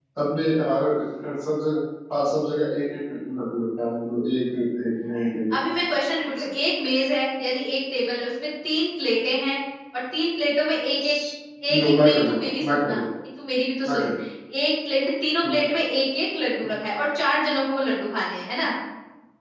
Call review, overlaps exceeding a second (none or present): present